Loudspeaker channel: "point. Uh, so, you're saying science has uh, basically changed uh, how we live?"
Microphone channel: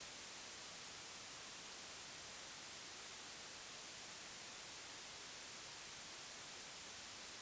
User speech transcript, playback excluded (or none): none